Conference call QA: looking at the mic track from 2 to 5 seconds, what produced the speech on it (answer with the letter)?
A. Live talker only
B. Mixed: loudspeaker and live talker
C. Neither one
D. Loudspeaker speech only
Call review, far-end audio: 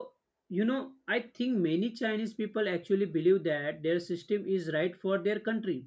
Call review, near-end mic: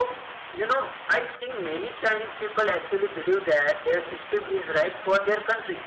D